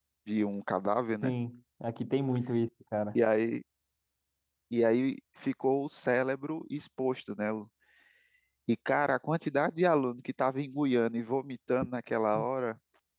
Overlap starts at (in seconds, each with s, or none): none